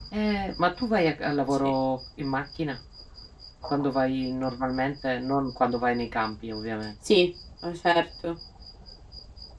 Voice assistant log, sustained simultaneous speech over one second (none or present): none